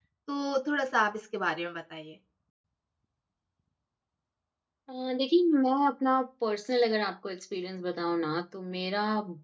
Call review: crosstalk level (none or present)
none